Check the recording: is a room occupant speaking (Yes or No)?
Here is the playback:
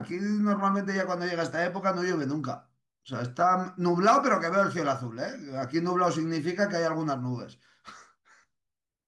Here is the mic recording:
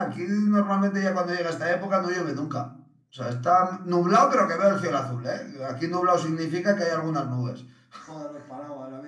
Yes